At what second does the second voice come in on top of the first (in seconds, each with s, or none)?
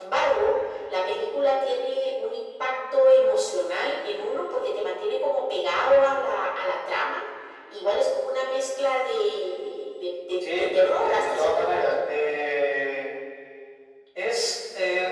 10.4 s